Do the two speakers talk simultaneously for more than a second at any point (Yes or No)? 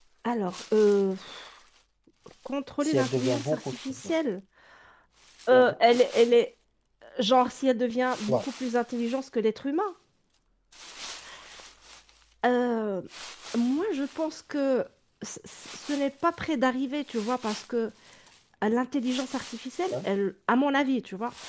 Yes